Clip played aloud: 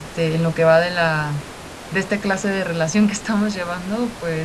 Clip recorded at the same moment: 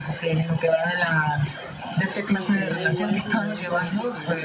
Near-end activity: present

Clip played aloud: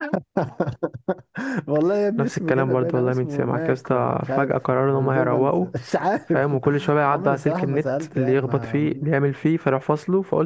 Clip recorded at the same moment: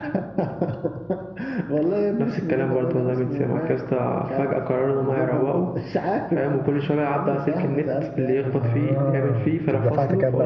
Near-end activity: present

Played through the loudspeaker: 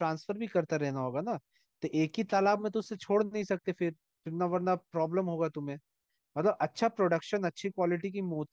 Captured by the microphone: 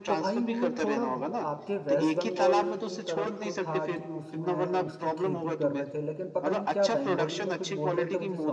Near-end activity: present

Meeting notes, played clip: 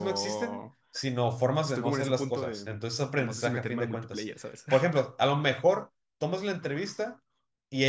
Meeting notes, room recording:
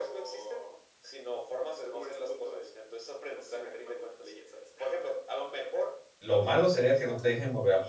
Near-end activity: present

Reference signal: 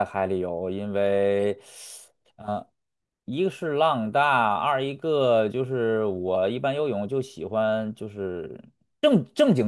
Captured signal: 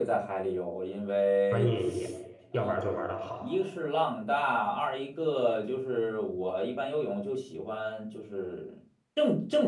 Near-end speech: present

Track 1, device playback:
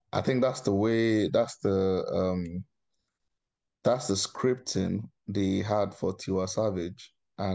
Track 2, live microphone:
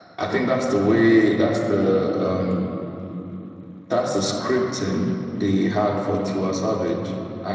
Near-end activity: none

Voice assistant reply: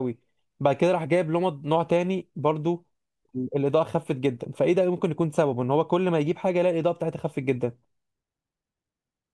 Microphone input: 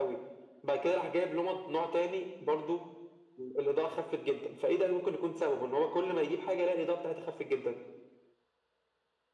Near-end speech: none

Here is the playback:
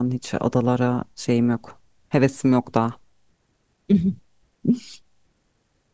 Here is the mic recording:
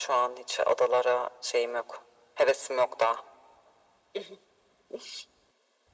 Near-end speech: none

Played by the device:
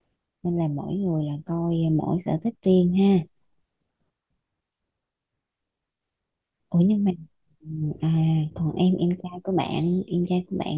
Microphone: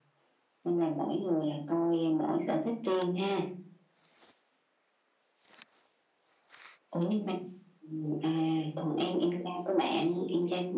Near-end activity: none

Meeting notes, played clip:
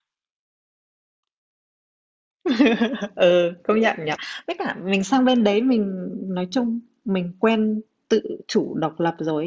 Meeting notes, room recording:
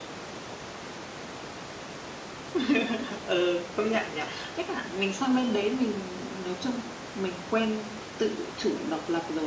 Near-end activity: none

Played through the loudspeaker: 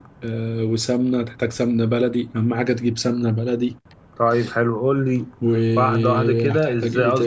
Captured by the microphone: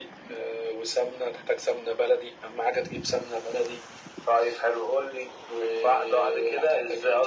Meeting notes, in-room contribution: none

